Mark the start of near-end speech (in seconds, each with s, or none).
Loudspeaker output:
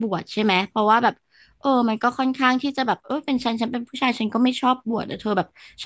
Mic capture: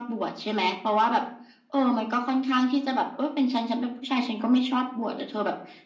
none